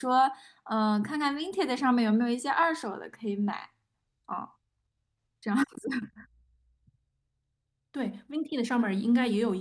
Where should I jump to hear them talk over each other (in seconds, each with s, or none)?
none